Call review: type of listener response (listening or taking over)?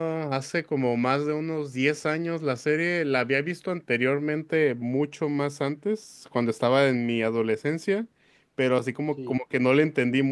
listening